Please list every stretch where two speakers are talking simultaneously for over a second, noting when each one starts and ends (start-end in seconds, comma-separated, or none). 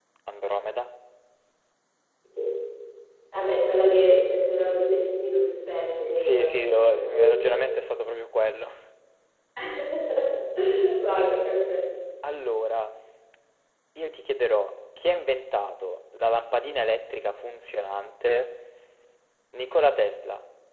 6.1-7.6